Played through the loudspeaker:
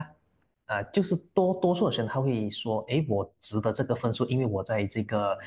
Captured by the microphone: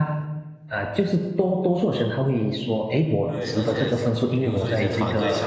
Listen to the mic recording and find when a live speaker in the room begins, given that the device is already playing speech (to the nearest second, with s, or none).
3 s